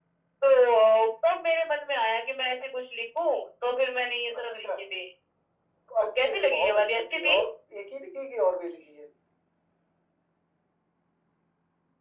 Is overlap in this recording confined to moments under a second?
No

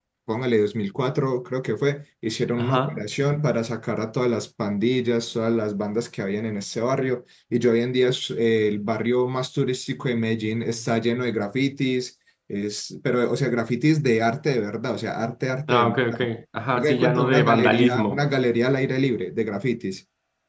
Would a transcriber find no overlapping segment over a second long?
No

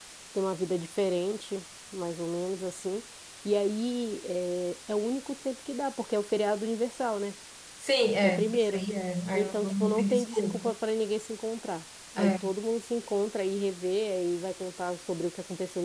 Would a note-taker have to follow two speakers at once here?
Yes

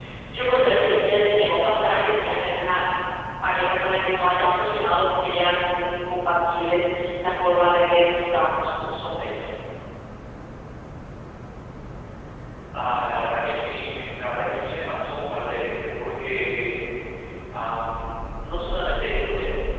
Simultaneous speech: No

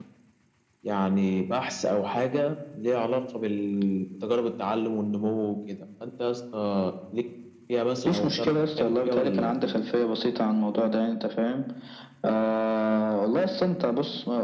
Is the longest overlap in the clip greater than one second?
Yes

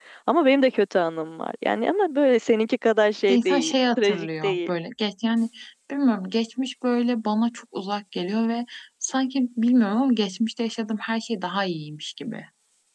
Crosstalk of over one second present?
Yes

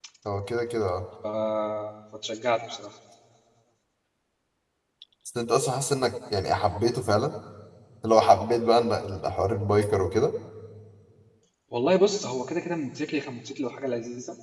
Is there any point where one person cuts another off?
No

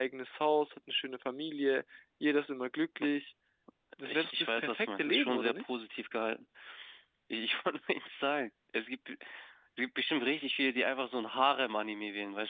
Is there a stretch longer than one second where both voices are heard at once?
Yes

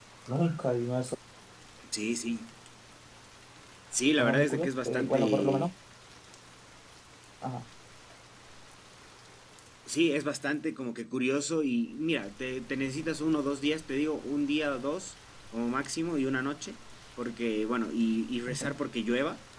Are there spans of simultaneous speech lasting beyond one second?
Yes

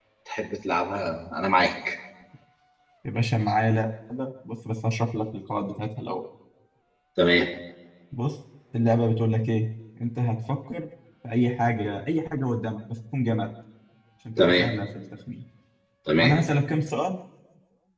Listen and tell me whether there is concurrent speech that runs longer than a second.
No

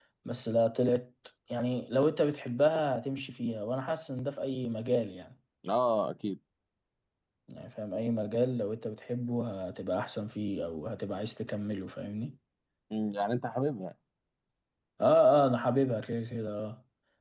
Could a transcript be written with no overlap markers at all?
Yes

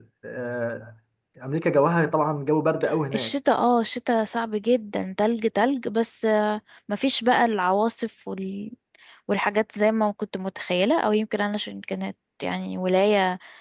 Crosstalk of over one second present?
No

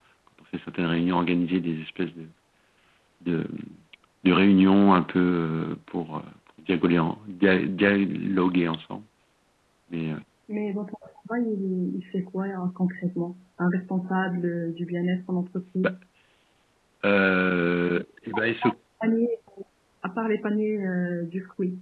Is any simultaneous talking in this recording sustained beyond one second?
No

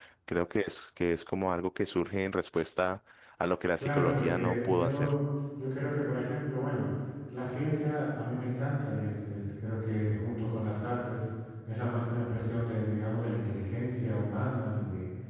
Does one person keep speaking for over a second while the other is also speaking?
Yes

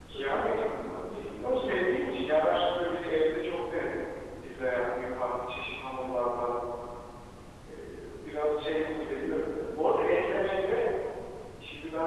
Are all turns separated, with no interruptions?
No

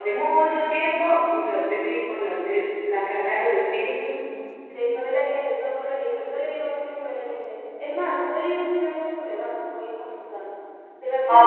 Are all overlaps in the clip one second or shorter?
Yes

